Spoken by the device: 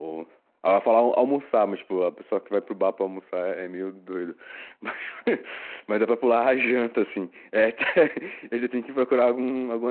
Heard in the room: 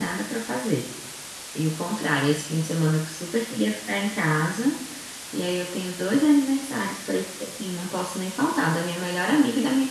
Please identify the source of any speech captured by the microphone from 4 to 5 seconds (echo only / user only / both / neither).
user only